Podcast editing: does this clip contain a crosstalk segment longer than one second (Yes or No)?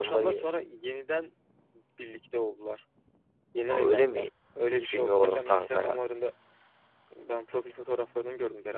Yes